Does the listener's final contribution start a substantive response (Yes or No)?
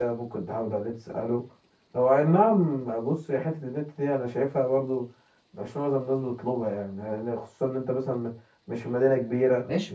Yes